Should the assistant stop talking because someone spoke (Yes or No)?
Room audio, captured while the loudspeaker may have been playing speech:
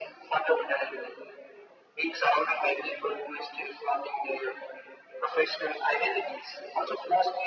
No